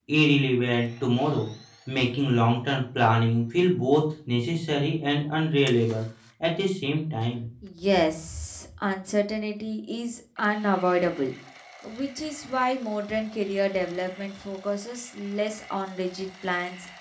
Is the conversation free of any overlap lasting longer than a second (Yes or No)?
Yes